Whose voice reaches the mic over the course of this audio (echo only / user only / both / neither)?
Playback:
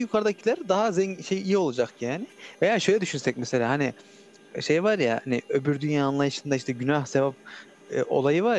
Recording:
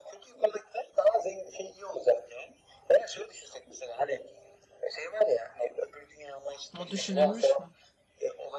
both